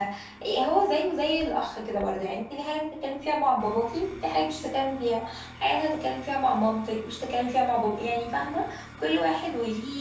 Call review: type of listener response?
listening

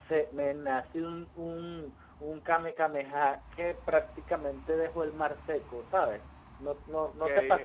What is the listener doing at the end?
taking over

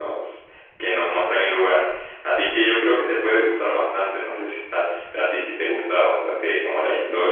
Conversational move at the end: taking over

